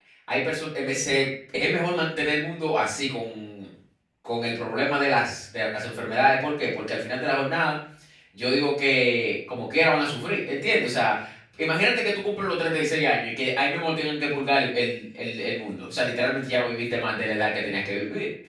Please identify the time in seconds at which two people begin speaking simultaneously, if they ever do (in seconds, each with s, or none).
none